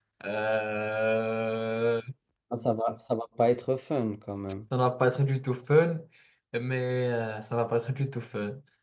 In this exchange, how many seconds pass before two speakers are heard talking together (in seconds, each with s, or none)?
none